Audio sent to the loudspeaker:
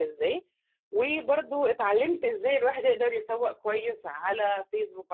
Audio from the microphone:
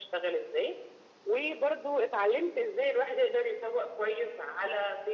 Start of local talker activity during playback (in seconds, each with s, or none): none